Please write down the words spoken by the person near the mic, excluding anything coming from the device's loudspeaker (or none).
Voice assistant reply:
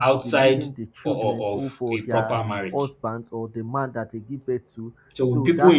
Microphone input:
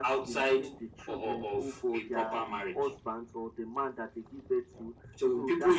none